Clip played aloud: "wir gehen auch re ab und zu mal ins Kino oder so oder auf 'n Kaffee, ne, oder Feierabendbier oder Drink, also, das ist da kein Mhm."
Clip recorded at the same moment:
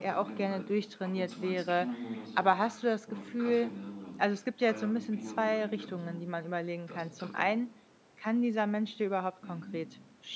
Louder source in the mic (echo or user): user